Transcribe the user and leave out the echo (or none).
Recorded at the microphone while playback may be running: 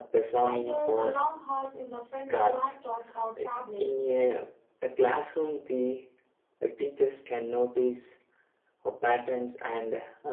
Either a long hours in the front of laptops or tablets